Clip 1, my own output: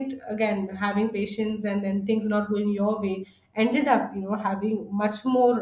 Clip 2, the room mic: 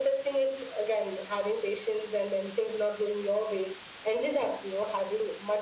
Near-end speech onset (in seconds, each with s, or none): none